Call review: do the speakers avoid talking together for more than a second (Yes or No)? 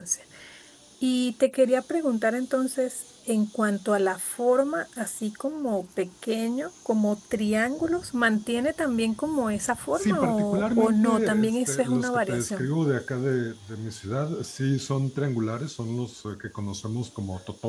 No